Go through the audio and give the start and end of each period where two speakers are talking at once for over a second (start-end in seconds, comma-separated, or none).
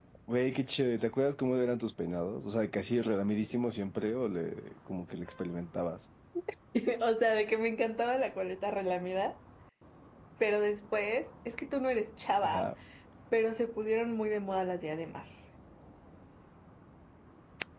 none